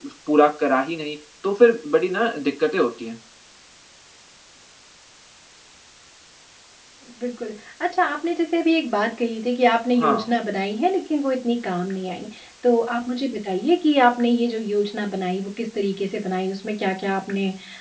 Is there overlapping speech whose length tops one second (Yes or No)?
No